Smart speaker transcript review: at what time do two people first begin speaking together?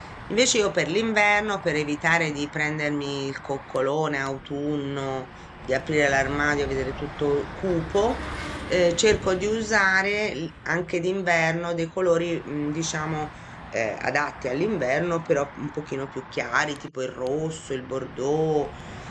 none

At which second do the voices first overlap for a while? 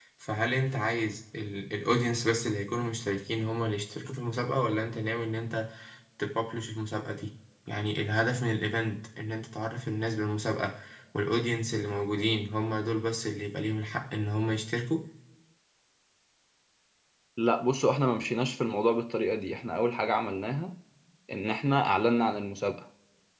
none

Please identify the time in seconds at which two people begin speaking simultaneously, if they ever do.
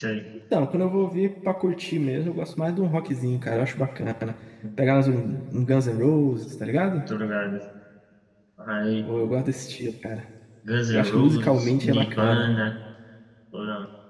11 s

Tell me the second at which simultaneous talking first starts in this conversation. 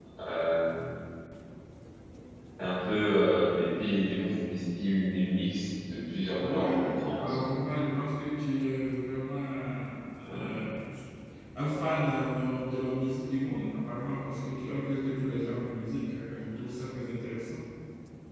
6 s

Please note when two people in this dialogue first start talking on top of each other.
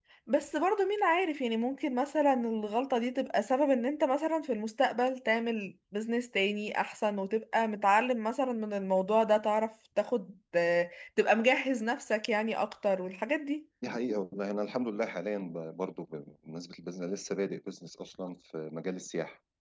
none

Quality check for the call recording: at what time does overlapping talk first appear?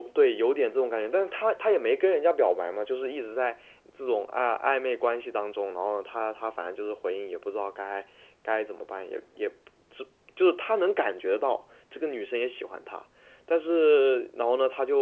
none

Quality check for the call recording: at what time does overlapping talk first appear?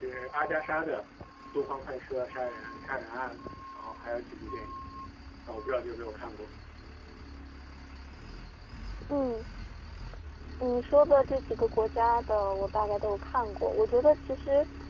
none

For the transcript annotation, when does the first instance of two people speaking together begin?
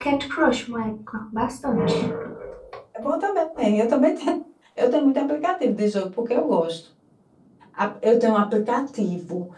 none

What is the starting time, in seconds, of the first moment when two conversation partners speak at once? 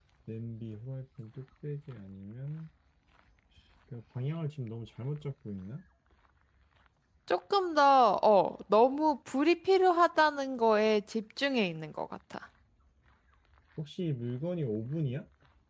none

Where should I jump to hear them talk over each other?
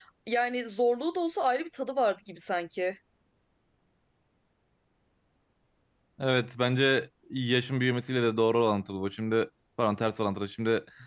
none

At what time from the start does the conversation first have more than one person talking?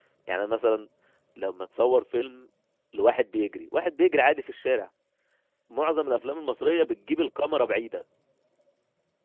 none

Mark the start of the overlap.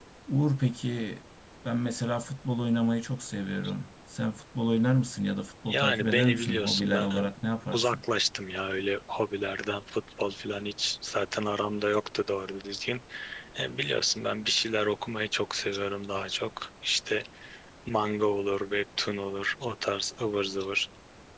6 s

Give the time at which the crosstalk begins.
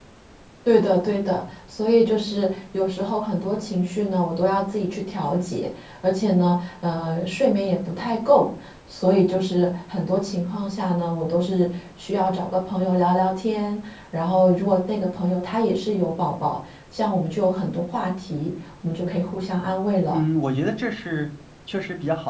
none

